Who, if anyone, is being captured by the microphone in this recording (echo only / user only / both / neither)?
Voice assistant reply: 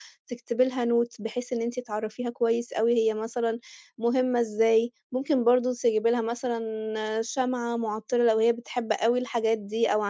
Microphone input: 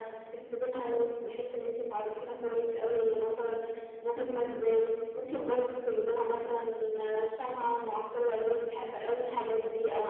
echo only